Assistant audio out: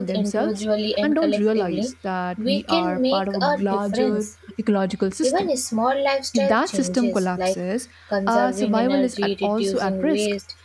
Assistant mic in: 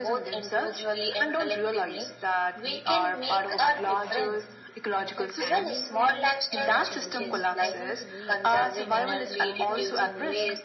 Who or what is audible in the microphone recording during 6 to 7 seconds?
both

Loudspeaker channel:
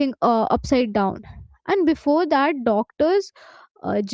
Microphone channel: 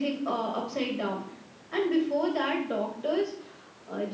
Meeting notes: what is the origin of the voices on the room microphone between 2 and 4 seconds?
echo only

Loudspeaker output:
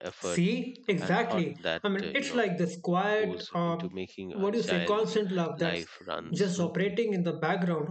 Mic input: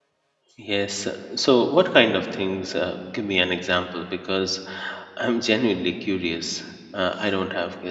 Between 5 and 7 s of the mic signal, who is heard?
user only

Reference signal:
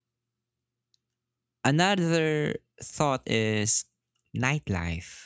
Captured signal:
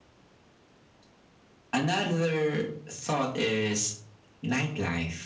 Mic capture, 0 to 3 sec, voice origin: echo only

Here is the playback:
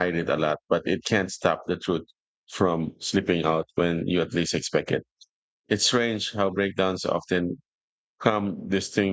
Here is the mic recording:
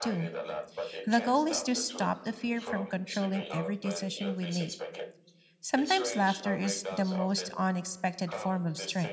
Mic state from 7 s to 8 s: both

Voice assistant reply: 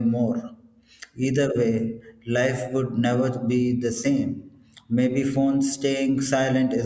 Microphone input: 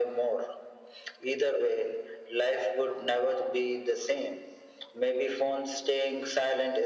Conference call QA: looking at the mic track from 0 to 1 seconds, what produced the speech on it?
echo only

